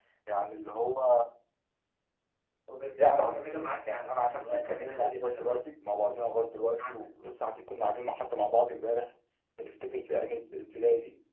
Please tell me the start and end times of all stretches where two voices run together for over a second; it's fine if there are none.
4.1-5.6

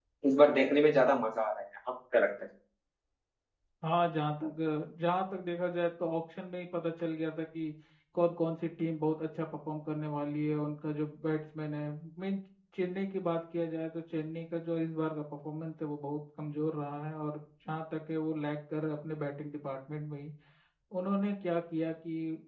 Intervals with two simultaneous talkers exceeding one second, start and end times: none

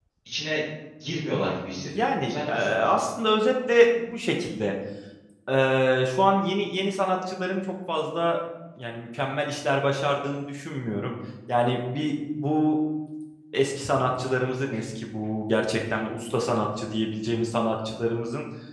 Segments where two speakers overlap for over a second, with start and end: 1.7-3.0

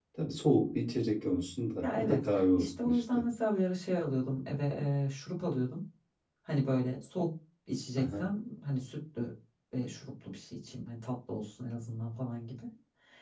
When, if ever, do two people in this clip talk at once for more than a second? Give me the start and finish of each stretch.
1.8-3.2

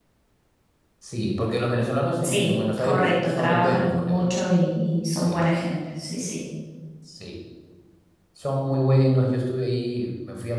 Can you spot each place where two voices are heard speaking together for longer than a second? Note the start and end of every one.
2.2-4.2

